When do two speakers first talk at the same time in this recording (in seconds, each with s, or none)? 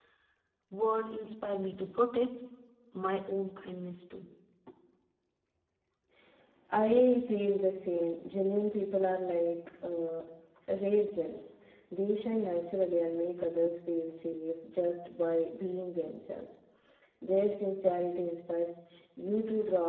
none